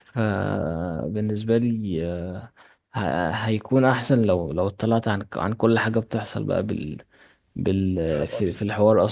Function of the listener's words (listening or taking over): listening